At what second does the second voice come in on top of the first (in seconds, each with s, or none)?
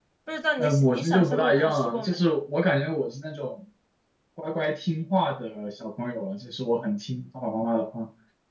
0.6 s